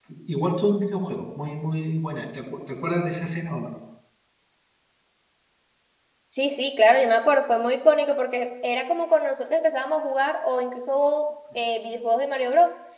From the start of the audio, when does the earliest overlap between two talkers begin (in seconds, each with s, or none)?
none